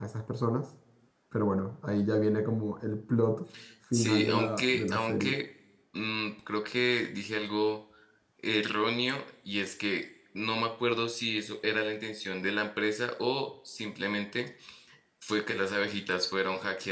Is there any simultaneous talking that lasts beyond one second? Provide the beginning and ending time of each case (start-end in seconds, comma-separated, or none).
3.9-5.3